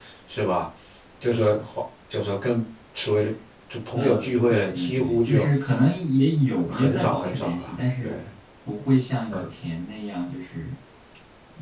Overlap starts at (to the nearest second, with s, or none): 4 s